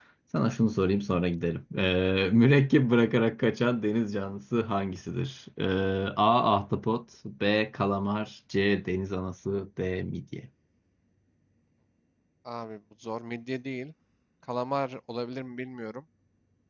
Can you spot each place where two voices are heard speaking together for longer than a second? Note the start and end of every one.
none

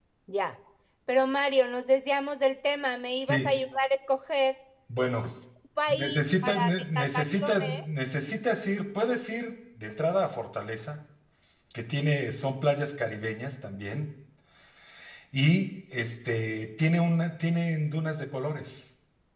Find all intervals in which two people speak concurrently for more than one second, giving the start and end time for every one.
6.0-7.8

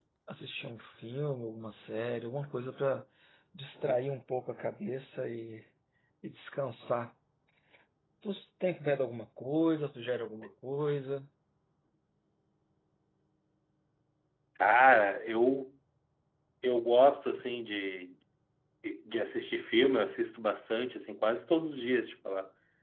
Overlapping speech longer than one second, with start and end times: none

